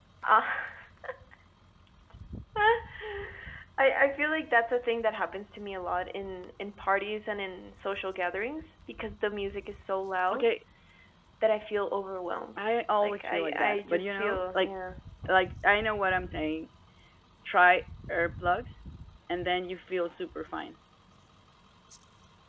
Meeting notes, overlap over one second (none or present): present